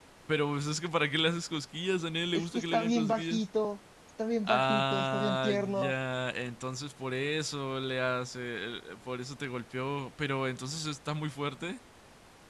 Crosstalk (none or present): present